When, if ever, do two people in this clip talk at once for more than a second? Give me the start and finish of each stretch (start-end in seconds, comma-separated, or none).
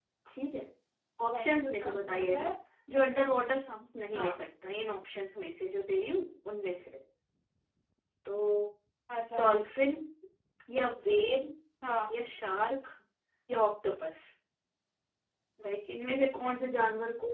1.3-2.5